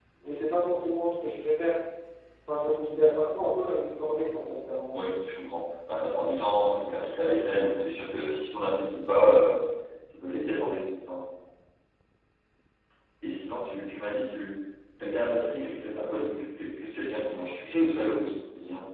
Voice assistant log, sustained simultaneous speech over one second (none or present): none